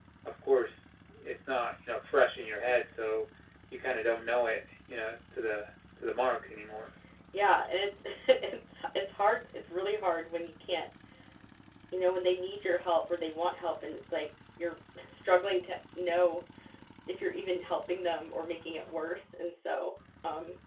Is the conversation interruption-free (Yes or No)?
Yes